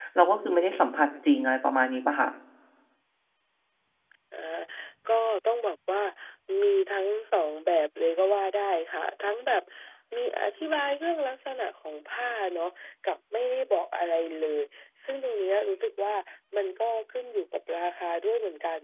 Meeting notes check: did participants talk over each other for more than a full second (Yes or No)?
No